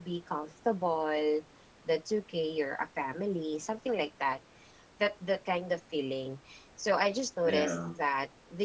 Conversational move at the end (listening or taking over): listening